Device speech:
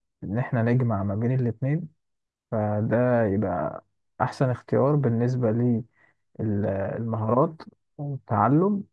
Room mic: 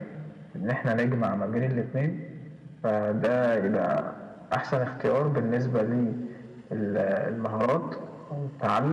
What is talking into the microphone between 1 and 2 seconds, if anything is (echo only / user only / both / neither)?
echo only